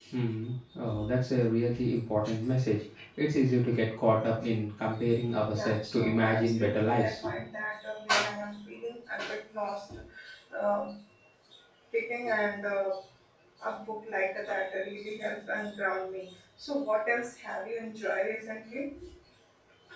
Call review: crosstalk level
present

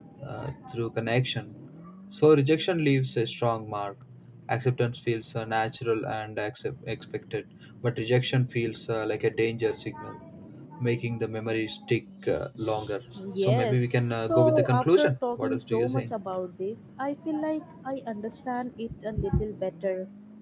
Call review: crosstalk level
present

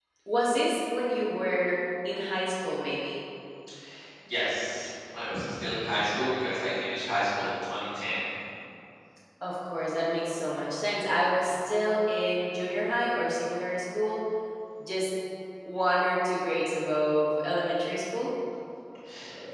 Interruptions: none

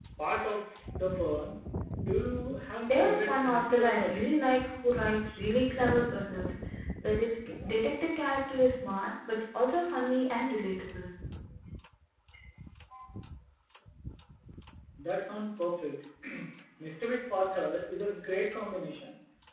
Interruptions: present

